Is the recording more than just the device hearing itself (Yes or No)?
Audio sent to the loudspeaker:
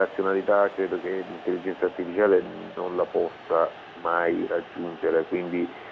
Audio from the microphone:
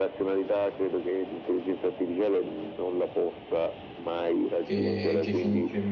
Yes